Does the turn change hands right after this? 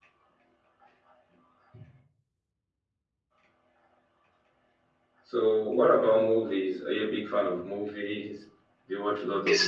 Yes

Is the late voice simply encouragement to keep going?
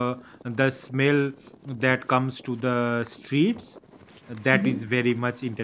Yes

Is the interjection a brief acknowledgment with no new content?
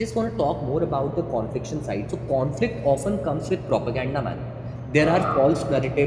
Yes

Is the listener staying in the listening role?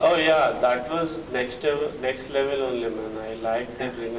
No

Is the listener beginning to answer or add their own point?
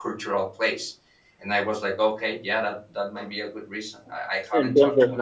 Yes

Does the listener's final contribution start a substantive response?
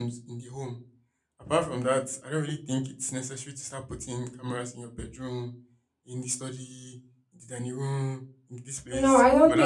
Yes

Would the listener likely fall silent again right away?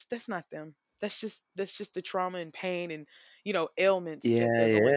No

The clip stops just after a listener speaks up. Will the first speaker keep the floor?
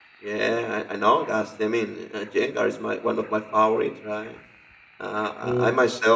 Yes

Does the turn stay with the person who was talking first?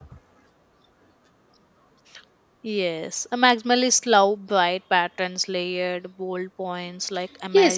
No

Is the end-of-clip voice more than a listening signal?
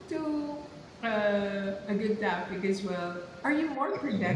No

